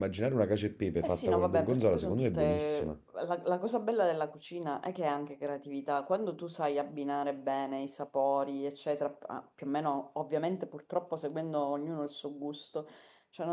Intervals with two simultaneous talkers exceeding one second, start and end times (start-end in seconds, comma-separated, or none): 1.0-2.9